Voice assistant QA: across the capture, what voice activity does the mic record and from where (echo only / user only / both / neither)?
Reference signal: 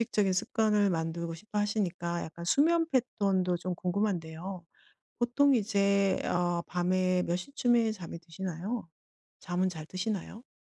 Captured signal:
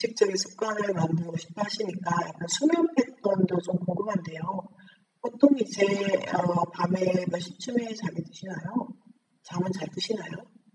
echo only